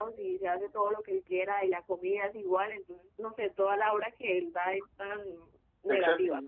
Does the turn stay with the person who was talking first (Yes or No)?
No